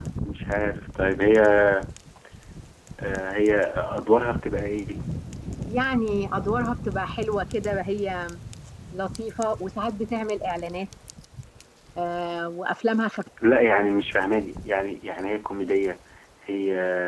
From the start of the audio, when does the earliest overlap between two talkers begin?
none

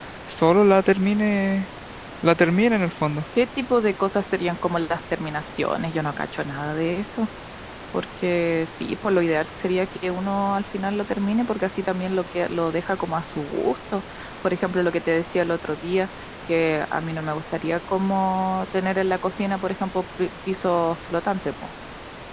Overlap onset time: none

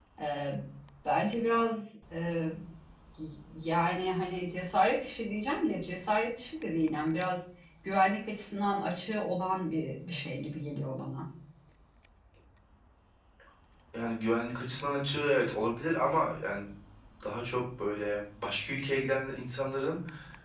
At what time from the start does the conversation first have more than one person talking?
none

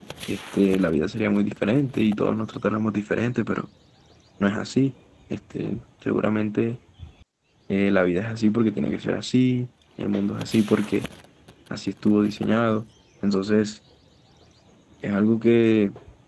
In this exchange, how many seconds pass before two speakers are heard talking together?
none

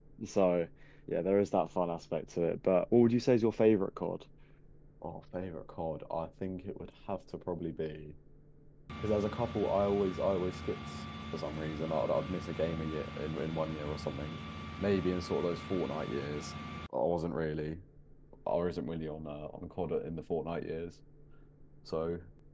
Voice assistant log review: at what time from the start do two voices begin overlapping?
none

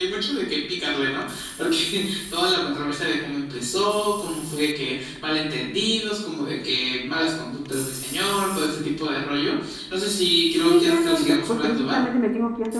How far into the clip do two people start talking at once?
11 s

